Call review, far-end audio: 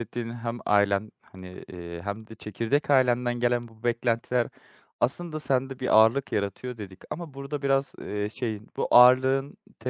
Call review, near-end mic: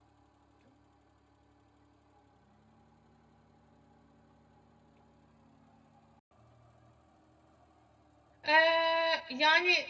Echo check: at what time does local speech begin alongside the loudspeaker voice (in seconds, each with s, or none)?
8.5 s